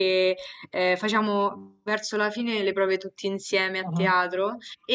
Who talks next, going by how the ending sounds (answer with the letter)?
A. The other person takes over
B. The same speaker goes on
B